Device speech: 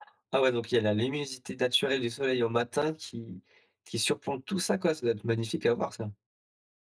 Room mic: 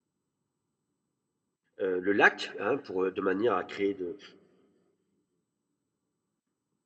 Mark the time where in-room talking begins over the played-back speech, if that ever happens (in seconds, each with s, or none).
1.8 s